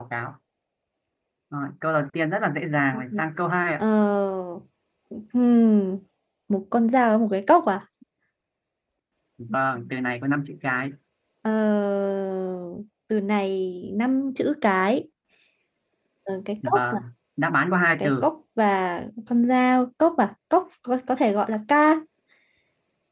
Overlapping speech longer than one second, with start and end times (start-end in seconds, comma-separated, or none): none